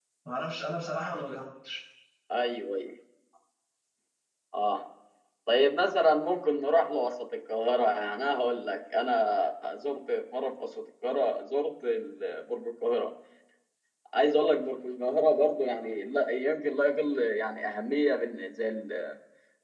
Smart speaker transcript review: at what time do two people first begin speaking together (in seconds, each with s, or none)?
none